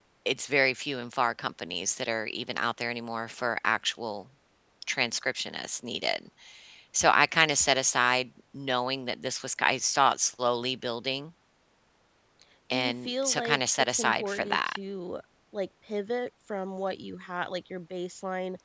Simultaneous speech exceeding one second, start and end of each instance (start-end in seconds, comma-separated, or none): 12.7-14.8